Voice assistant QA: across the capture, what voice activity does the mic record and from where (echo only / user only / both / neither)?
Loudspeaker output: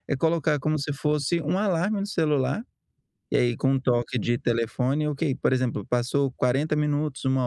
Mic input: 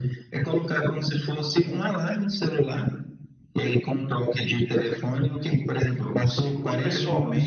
both